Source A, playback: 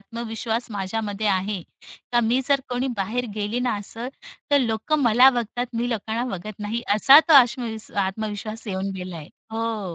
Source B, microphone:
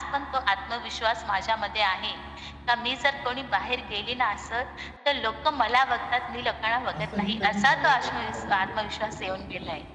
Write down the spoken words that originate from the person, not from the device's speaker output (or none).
असंही कधी झालंय का तुमच्याबरोबर?